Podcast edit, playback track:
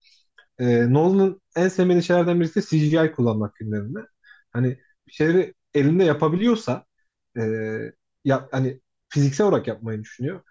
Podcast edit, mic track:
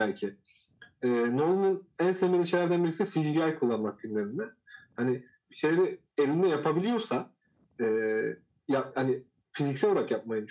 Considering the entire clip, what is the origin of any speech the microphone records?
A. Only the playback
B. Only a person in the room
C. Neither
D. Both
A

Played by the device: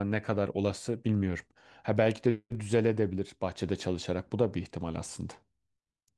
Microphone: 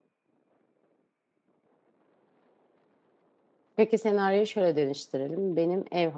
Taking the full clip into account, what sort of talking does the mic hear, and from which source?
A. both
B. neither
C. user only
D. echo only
C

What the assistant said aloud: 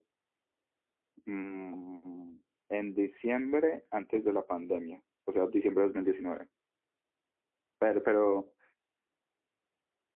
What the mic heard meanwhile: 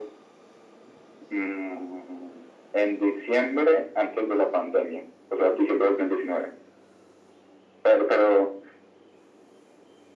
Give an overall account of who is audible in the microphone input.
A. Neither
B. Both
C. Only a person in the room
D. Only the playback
D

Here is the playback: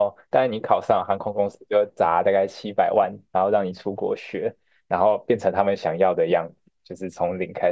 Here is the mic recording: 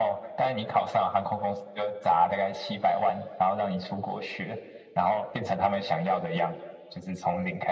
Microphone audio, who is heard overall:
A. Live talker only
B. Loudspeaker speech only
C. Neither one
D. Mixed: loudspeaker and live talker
B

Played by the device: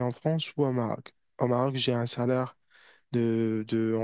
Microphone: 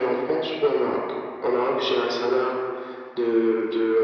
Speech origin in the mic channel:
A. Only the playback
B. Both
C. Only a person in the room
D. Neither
A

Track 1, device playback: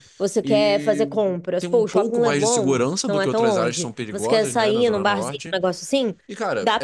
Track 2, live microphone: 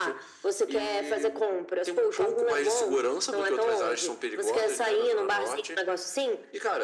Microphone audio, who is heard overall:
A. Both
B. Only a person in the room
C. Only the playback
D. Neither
C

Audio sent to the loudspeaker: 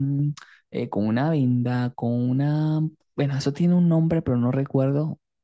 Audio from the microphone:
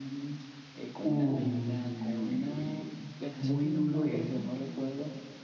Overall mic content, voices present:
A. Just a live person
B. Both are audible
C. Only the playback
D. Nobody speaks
B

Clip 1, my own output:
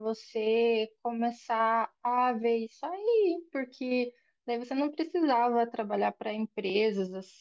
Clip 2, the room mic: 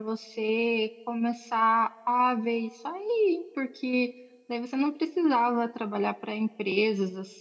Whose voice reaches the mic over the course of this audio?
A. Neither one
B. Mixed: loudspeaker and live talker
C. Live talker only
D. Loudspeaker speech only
D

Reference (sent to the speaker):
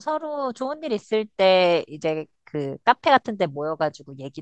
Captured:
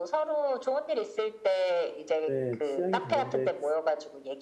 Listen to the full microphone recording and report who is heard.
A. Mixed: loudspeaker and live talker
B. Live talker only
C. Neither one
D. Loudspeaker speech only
A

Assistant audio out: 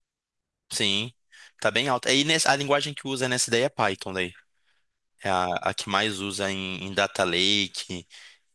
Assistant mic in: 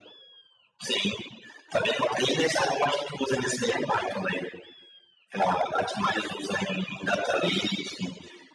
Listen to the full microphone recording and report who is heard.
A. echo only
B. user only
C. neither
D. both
A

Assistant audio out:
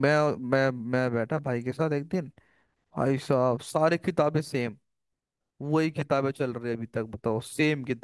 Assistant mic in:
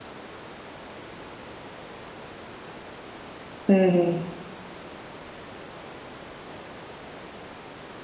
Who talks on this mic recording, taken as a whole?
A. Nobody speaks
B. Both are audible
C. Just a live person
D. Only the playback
C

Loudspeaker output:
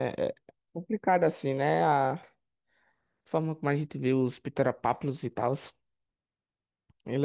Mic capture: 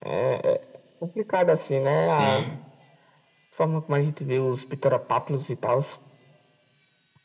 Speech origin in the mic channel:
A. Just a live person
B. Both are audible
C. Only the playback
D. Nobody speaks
B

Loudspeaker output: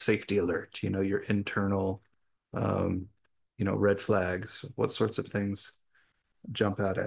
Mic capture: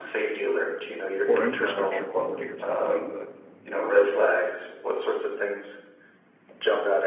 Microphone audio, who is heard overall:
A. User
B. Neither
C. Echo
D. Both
D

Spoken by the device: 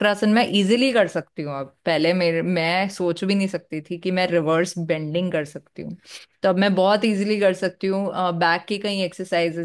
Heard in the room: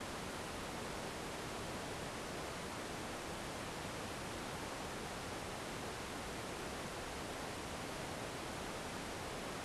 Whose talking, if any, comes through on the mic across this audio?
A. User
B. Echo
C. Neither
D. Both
C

